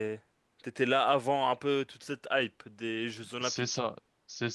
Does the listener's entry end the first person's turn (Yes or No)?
Yes